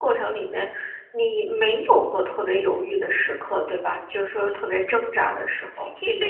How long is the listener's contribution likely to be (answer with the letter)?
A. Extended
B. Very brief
A